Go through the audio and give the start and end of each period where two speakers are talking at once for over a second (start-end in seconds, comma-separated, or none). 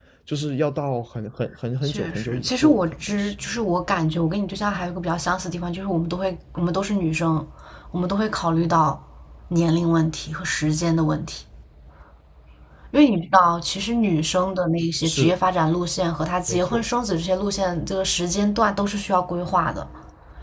1.8-3.3